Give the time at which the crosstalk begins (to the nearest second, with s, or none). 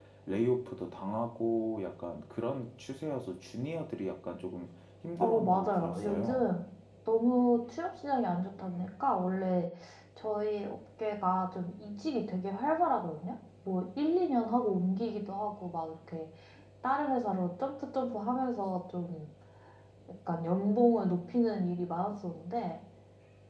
5 s